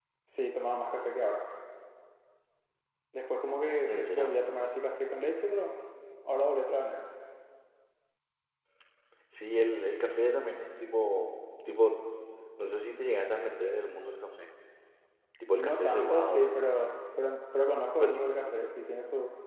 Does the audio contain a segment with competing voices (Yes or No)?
Yes